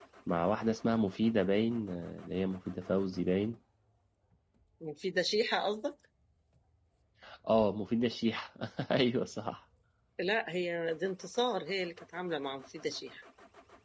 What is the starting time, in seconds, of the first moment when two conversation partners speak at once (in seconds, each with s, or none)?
none